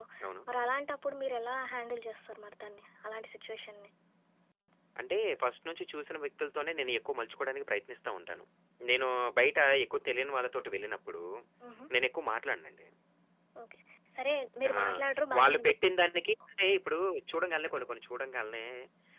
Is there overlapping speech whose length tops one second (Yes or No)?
No